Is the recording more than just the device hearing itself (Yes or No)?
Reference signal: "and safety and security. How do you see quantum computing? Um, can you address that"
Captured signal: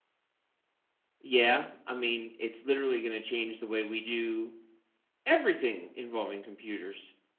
Yes